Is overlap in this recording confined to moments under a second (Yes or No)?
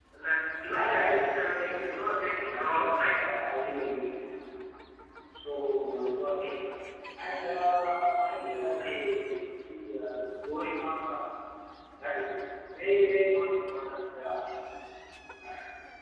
No